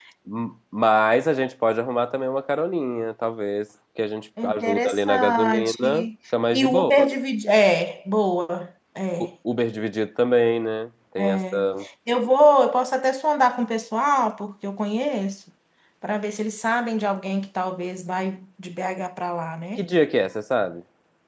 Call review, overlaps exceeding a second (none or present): present